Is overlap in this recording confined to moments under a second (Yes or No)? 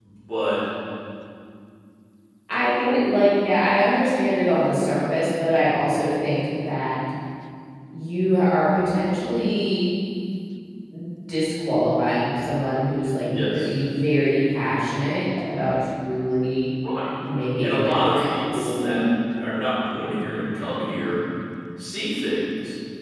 No